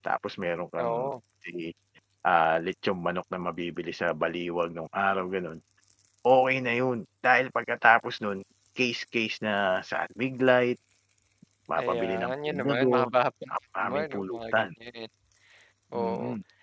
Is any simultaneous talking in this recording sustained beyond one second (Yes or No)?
Yes